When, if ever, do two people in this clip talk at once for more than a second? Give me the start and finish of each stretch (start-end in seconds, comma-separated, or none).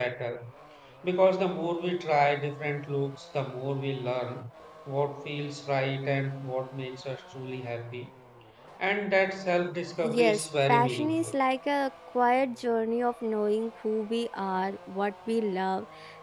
10.0-11.4